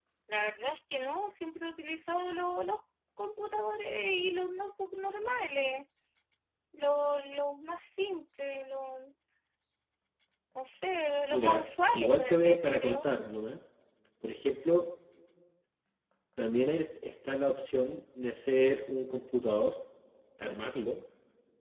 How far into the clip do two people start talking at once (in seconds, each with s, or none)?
11.3 s